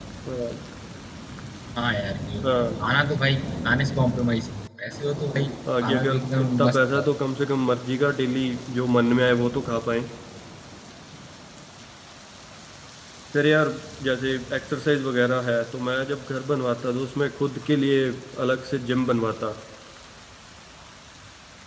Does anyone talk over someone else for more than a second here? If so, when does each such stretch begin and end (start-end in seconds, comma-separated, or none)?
5.8-7.1